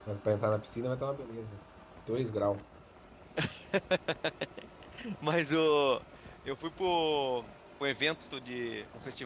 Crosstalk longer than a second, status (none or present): none